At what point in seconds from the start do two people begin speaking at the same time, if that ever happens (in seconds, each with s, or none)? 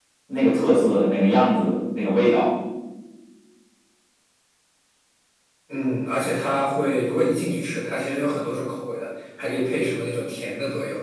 none